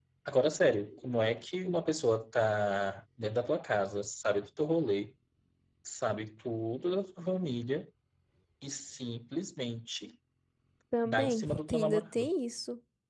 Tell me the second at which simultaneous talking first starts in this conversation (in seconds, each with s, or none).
11.1 s